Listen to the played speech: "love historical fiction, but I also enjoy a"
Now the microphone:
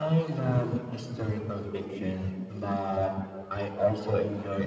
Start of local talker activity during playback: none

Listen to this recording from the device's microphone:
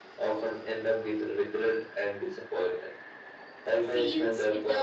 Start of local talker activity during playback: 3.8 s

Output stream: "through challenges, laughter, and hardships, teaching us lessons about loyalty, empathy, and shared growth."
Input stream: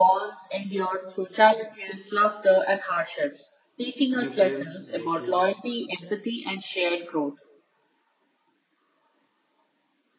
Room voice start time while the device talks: 4.2 s

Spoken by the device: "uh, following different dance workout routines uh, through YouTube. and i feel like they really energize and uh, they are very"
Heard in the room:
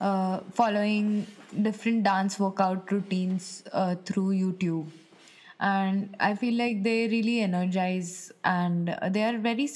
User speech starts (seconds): none

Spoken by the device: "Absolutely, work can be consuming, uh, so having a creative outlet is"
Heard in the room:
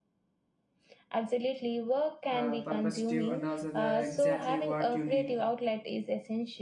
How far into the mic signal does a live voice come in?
2.3 s

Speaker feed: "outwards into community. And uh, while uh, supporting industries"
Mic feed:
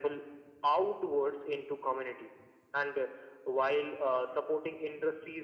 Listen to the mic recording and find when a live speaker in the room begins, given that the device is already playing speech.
none

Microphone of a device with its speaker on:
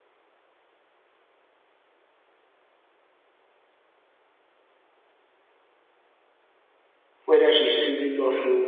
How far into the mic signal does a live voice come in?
7.2 s

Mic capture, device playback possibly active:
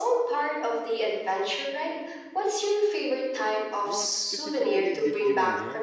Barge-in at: 3.8 s

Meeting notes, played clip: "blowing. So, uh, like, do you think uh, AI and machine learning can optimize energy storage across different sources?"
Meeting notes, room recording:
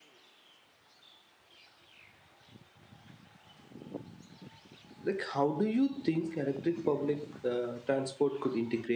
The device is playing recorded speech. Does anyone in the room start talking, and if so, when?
5.0 s

